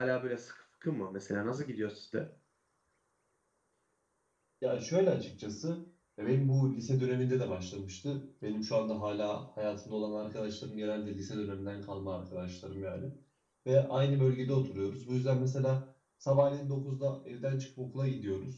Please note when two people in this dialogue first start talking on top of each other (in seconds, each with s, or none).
none